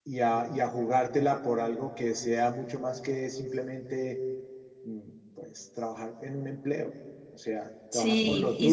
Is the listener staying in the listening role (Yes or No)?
No